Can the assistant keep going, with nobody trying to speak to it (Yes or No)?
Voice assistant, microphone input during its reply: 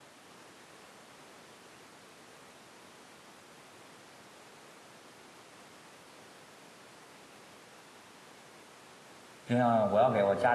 No